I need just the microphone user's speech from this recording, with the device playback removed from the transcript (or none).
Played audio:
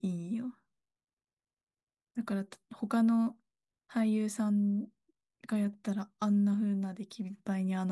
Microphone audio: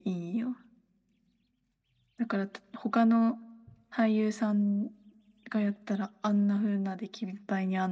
none